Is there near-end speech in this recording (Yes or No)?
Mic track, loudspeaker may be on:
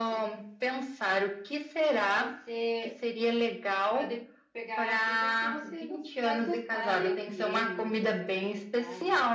Yes